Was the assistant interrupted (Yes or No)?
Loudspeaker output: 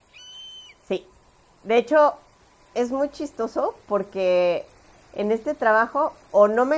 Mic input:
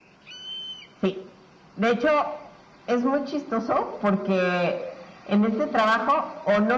No